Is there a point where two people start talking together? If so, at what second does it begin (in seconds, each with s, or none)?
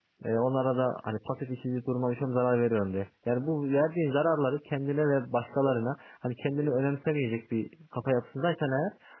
none